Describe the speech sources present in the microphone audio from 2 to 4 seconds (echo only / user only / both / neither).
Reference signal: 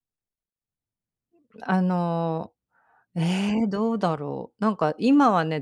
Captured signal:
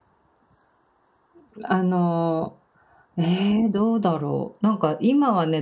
echo only